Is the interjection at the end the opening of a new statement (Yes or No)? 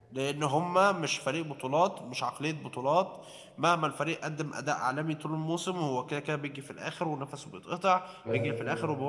No